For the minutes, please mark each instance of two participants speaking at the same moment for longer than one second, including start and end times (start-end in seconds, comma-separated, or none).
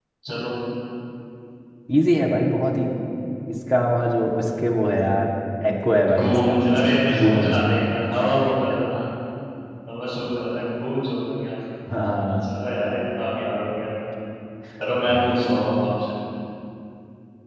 6.2-7.6